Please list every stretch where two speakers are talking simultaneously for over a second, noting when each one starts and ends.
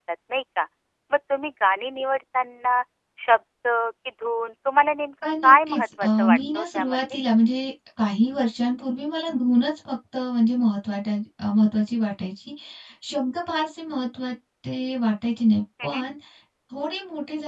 5.4-7.2

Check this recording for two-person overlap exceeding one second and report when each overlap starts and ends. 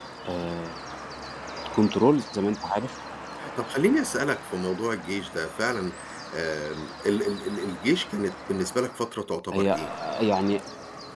none

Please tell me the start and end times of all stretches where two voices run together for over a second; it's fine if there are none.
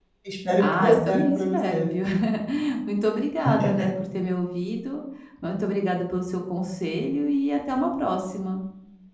0.6-1.9

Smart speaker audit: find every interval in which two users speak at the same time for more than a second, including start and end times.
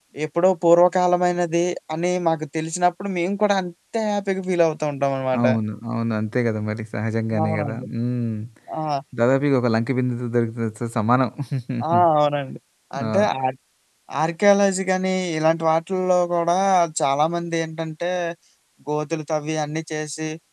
none

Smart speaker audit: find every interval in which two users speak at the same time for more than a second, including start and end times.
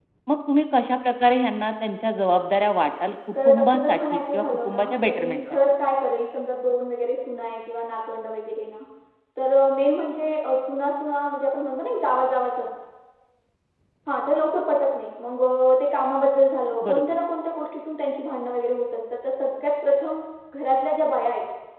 3.5-5.4

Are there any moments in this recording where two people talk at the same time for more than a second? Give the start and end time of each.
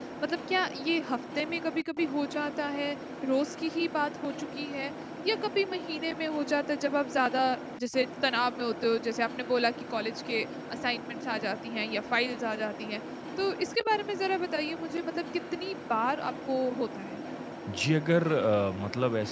none

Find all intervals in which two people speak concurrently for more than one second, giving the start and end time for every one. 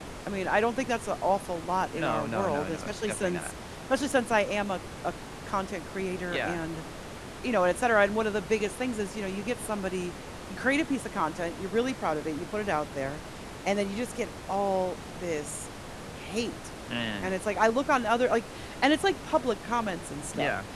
1.9-3.5

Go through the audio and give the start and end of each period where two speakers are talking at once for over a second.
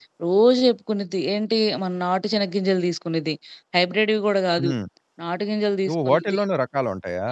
none

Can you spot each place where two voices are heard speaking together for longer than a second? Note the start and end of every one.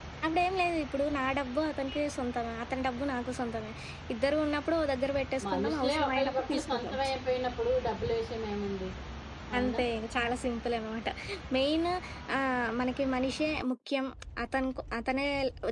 5.5-6.9

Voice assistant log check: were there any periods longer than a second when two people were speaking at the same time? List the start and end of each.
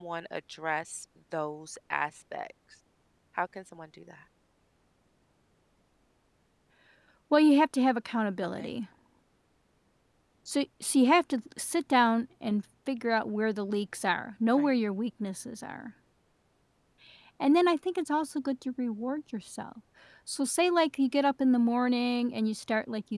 none

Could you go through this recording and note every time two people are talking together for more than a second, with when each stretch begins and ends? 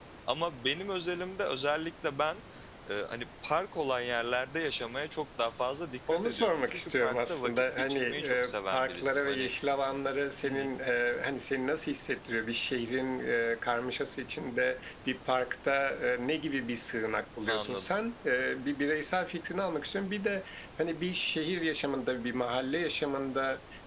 6.1-9.5

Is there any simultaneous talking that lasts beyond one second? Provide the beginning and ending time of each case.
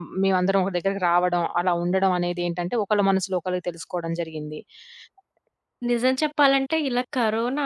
none

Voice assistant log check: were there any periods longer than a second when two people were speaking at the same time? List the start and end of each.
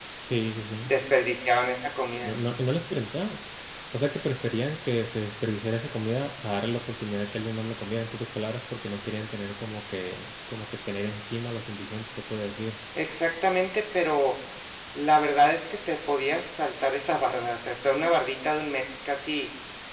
none

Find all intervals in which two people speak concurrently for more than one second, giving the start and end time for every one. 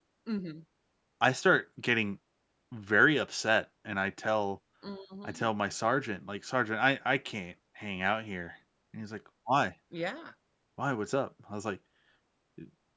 none

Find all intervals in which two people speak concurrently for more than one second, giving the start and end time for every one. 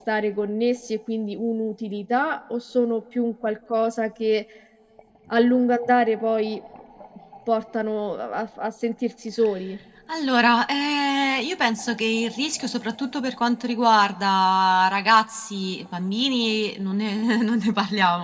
none

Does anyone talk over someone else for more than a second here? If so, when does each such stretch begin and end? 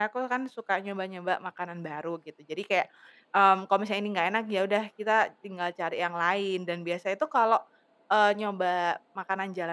none

